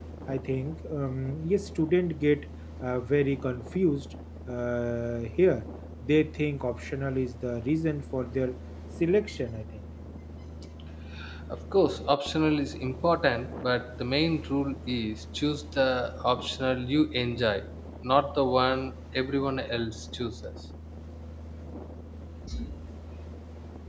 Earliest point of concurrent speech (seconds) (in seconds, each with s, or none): none